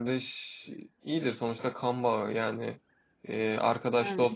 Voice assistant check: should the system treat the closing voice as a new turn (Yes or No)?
No